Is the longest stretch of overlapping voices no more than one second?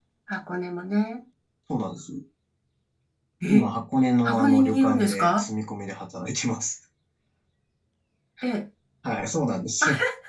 No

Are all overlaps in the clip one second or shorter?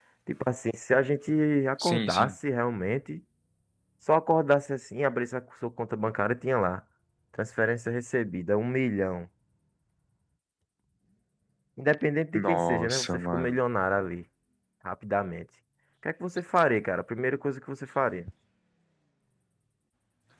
No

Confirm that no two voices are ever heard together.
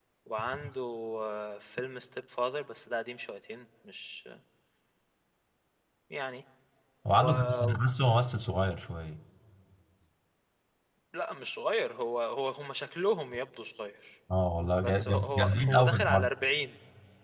No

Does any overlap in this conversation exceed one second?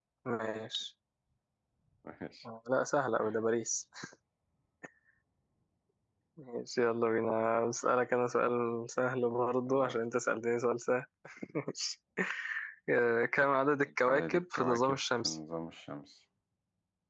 Yes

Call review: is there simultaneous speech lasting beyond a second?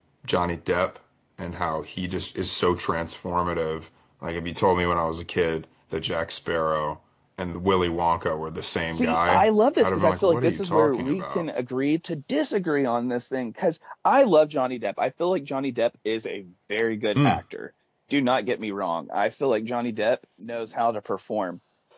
Yes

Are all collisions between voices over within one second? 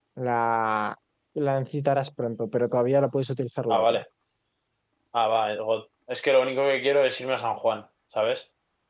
Yes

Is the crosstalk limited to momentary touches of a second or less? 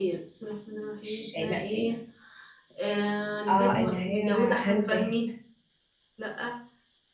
No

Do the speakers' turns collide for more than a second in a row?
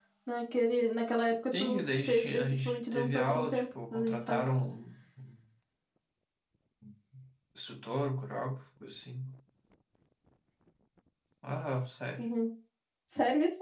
Yes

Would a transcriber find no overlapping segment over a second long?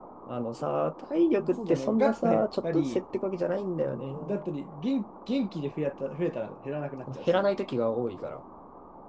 No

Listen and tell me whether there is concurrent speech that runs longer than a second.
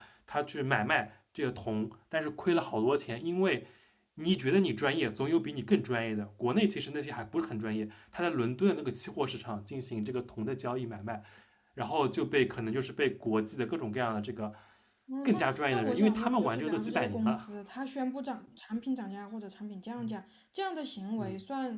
Yes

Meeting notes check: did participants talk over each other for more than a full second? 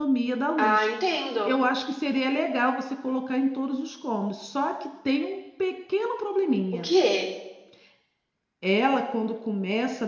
No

